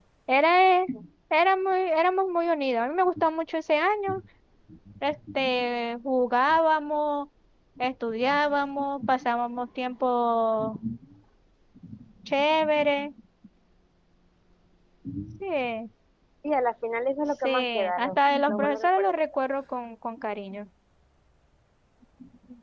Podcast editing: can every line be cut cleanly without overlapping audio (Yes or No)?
No